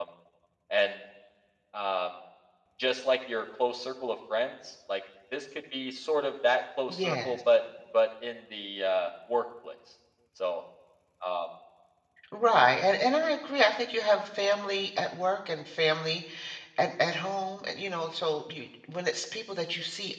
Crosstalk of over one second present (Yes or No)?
No